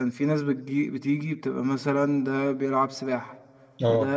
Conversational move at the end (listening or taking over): listening